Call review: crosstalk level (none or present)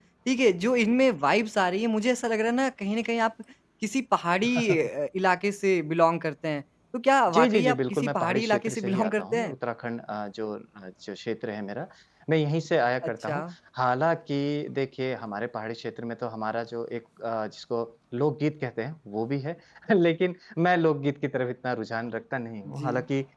present